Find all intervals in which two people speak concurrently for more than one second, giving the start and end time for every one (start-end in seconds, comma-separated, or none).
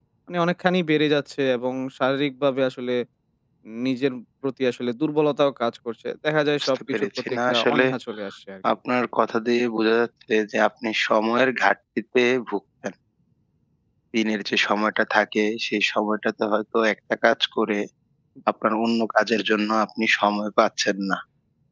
6.6-7.9